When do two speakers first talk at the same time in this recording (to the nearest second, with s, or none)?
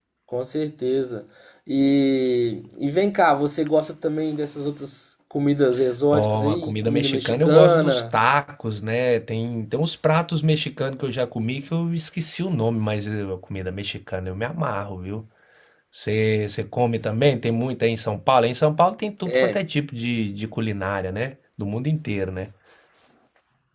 6 s